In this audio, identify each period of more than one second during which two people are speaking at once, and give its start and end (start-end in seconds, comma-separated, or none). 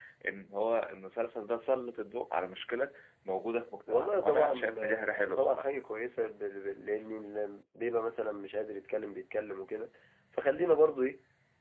3.9-5.7